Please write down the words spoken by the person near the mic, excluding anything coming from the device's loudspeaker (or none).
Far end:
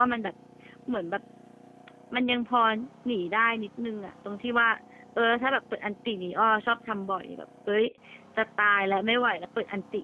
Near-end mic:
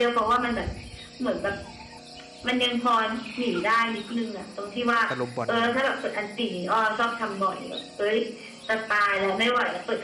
ตะลุมบอลอยู่ตรงนั้น